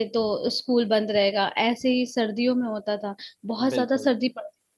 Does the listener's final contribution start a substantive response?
No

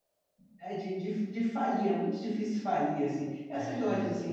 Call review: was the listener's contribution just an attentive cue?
Yes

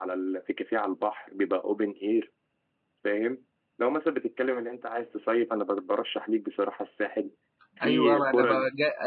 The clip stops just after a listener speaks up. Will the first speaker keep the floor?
No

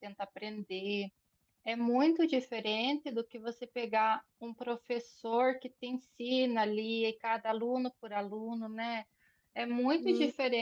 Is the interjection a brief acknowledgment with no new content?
Yes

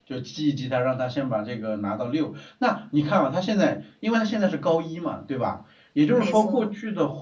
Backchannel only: Yes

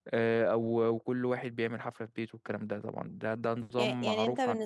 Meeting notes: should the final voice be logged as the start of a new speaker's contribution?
Yes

